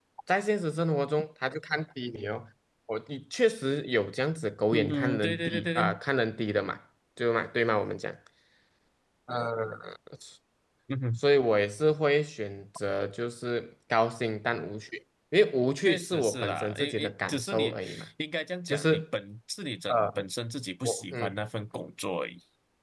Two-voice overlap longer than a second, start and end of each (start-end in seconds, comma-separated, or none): 4.7-6.0, 15.8-17.8